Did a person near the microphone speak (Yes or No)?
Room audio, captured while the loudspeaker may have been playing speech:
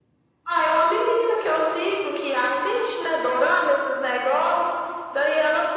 No